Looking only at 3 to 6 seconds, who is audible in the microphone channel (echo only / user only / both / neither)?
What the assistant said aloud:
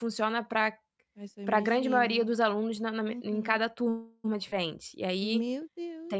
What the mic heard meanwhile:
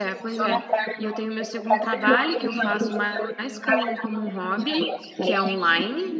both